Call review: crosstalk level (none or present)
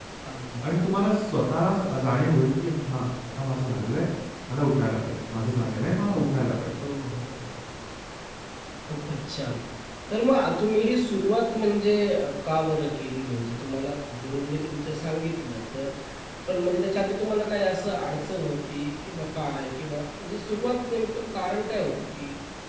none